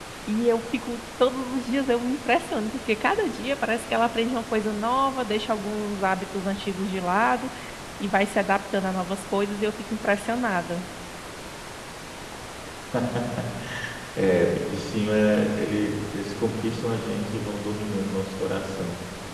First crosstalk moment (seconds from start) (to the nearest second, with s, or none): none